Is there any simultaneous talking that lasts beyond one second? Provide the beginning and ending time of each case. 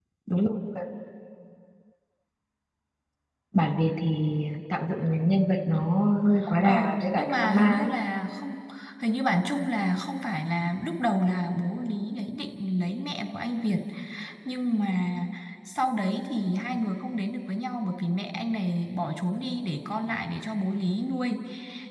6.6-7.9

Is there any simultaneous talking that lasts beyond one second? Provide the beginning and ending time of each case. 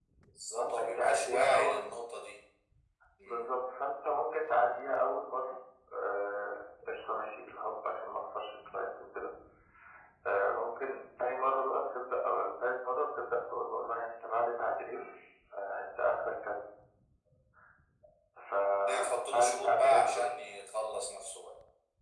0.6-2.0, 18.9-20.3

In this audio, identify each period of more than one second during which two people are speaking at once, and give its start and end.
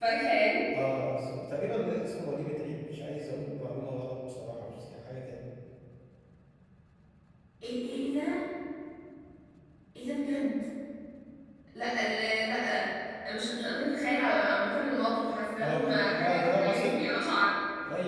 15.6-17.1

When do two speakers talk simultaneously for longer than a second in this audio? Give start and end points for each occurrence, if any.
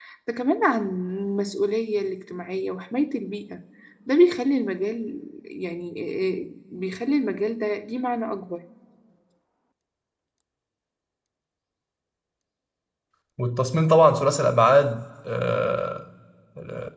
none

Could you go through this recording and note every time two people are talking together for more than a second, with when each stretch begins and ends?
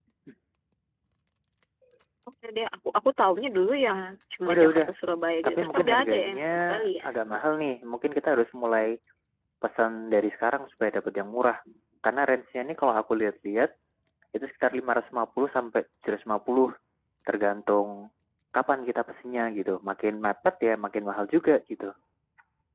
5.5-7.0

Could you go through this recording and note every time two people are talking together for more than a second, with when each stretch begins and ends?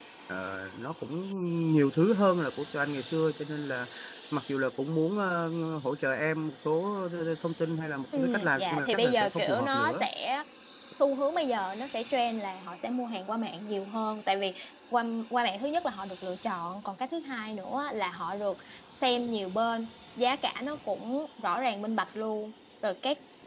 8.2-10.1

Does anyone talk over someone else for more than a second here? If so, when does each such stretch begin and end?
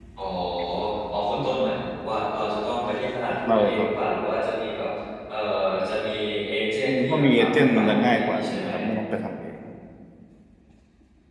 6.8-8.7

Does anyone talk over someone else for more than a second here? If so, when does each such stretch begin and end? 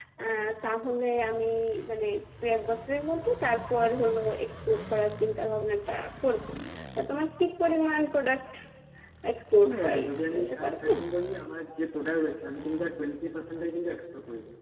9.7-10.9

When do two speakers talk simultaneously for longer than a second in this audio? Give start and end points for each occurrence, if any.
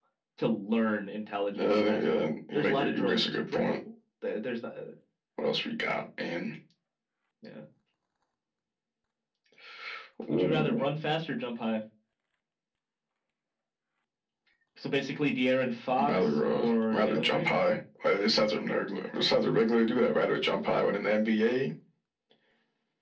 1.6-3.8, 16.1-17.5

